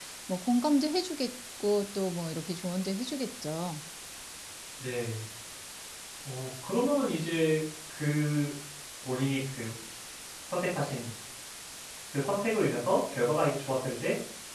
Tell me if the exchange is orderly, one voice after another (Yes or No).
Yes